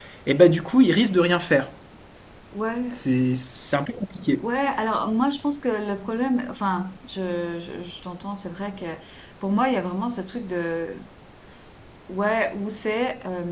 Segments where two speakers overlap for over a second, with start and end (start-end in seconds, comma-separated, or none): none